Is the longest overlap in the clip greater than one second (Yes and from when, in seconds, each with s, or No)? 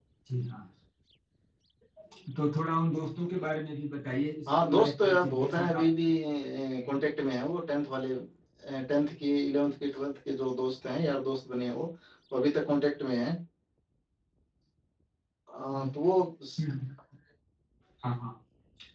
Yes, from 4.5 s